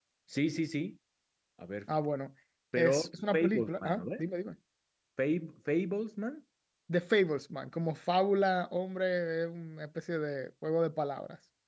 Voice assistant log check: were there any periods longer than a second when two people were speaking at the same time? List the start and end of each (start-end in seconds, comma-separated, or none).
2.8-4.2